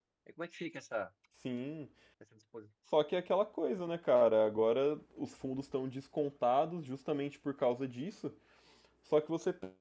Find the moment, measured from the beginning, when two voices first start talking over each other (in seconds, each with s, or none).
none